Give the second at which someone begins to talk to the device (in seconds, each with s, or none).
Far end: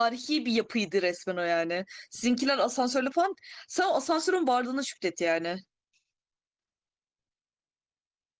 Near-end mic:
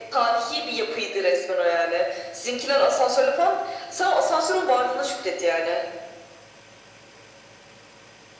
none